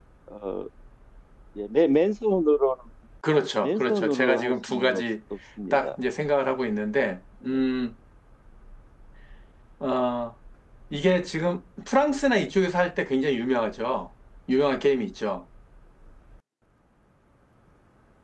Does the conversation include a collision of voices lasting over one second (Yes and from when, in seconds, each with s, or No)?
Yes, from 3.6 s